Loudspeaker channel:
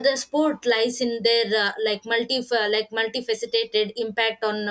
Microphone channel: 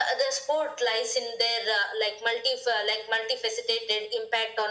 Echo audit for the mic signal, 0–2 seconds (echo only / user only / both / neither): echo only